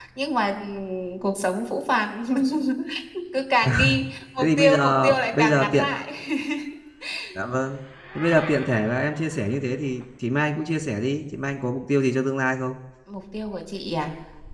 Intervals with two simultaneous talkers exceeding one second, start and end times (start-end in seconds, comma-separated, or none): 4.4-5.9